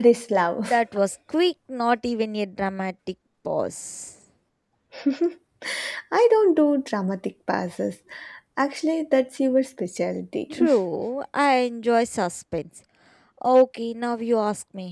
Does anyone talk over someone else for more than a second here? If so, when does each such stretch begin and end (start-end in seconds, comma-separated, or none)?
none